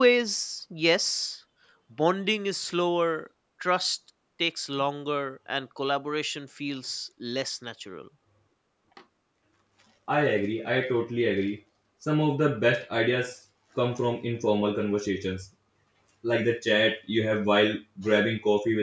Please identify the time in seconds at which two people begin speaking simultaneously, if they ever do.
none

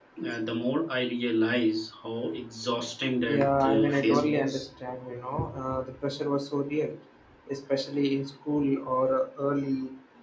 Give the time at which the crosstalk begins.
3.2 s

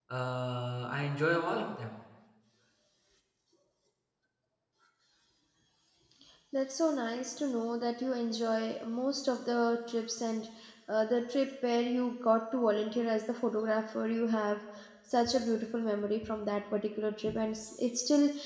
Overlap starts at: none

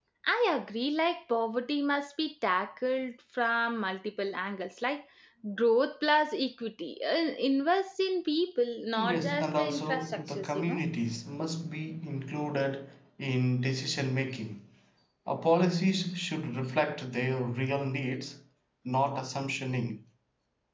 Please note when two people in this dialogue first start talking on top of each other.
9.0 s

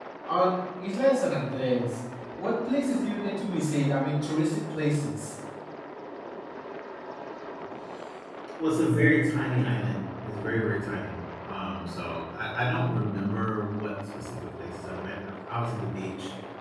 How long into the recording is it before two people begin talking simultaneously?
none

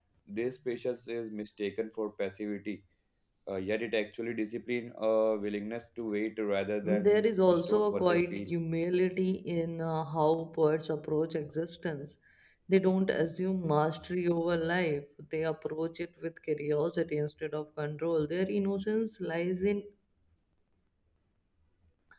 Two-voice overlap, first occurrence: 6.8 s

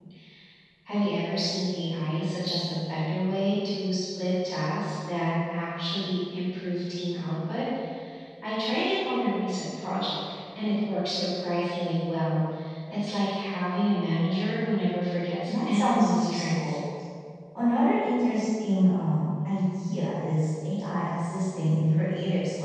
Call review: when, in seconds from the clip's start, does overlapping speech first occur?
15.5 s

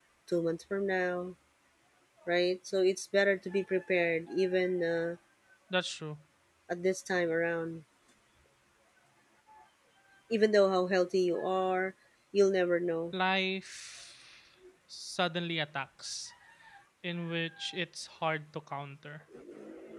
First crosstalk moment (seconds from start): none

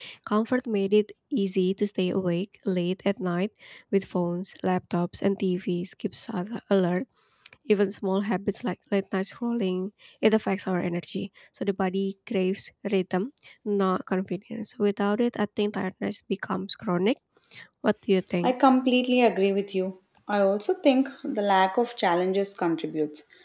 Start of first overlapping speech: none

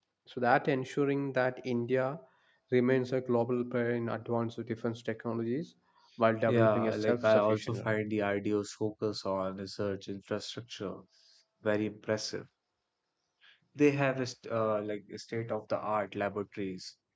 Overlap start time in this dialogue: 6.5 s

